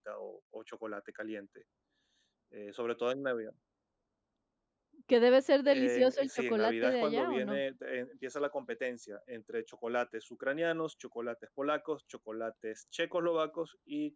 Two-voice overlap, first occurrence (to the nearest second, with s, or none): 6 s